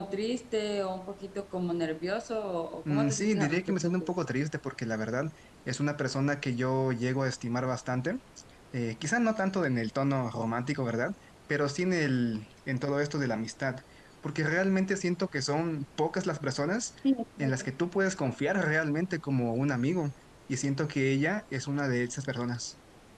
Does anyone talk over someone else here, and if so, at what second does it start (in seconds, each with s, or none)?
2.9 s